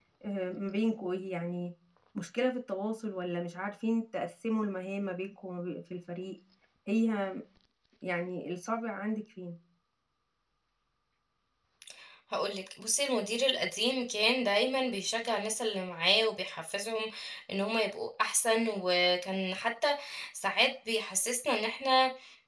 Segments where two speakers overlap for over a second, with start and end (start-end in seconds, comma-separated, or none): none